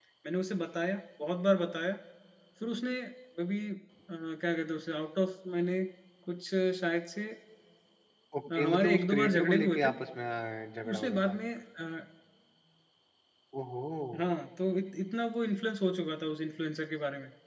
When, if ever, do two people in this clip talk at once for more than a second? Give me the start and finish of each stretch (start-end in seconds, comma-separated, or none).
8.6-9.9